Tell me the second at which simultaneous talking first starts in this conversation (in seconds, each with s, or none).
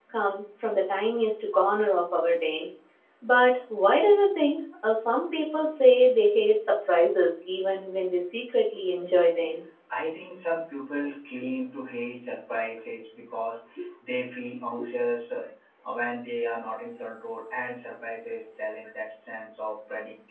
none